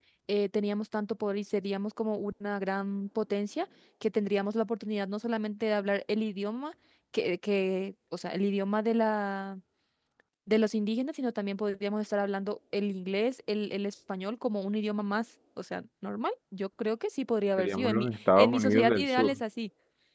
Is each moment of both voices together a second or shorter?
No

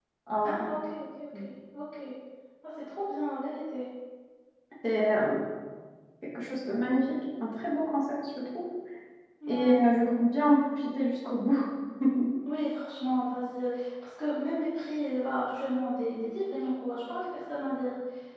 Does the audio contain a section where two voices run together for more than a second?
No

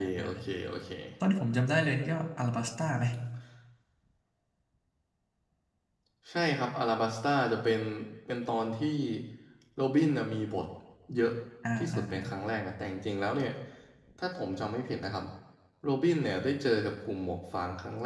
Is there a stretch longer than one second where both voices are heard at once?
No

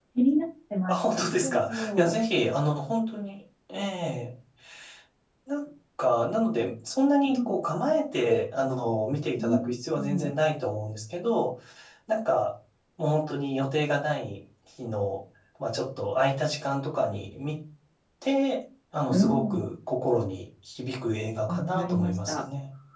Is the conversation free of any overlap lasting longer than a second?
No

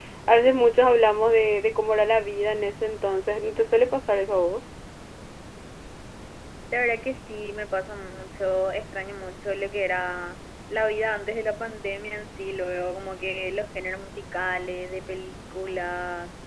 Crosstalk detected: No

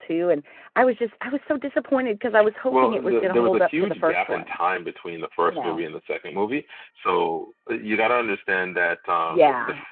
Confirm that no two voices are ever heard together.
No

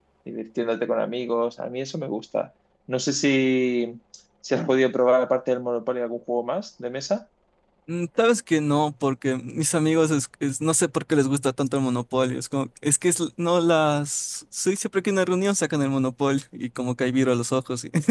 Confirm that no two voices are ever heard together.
Yes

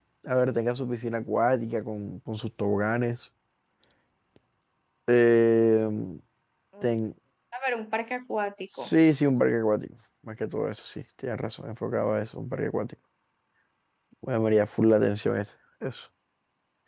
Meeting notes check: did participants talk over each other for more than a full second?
No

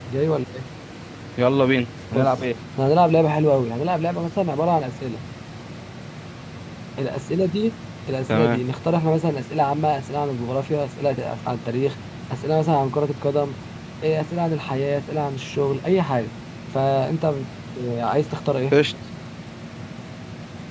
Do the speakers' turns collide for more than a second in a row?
No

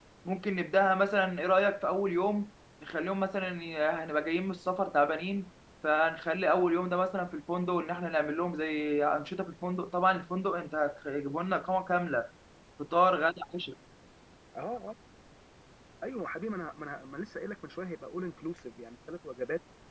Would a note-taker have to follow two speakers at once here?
No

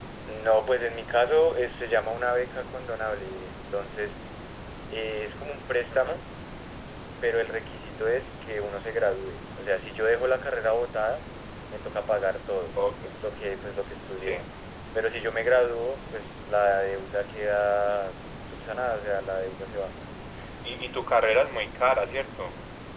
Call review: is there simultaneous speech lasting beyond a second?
No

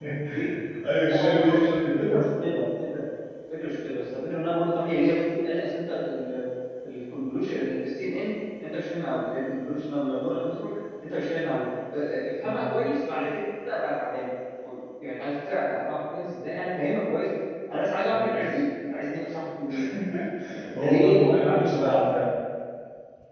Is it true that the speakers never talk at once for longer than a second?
No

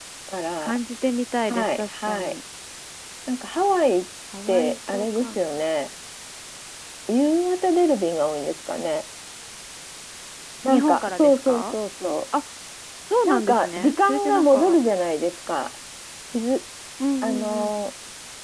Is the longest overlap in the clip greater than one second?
Yes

